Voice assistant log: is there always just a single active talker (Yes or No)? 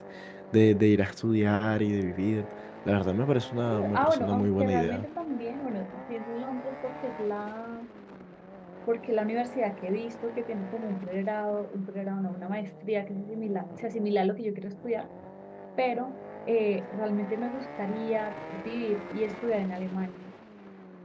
No